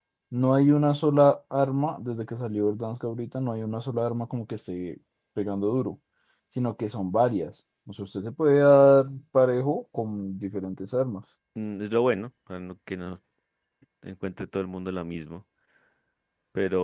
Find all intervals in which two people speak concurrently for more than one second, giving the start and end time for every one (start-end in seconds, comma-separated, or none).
none